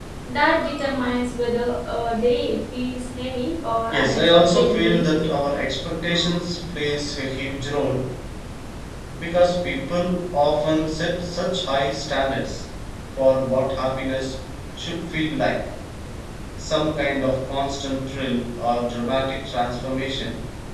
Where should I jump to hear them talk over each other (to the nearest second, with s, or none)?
4 s